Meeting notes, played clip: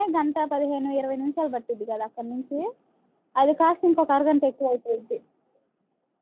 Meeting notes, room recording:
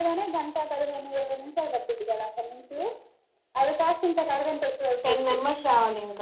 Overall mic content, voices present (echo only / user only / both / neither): both